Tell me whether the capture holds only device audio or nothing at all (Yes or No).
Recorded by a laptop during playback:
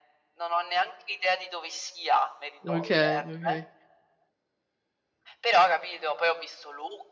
No